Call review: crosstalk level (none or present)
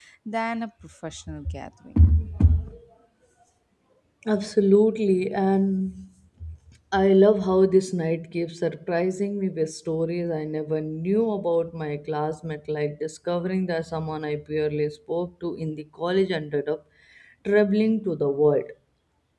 none